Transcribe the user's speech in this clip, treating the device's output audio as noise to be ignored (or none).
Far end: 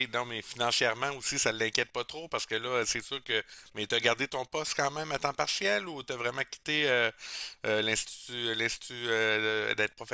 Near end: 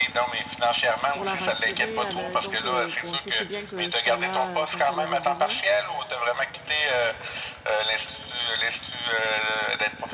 pour la rassurer. Elle, euh, donc euh, bon, c'était bien que je sois là euh, quand elle avait besoin.